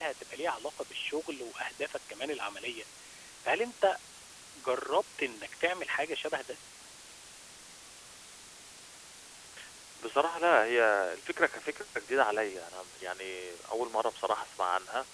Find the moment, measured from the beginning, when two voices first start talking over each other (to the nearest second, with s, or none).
none